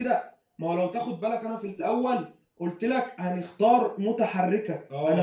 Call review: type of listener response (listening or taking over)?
taking over